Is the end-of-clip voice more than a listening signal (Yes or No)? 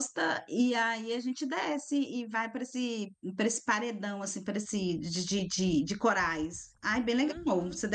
Yes